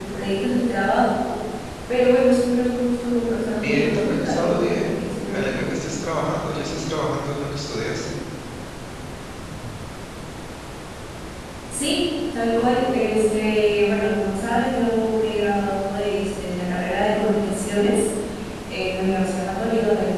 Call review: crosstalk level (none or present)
present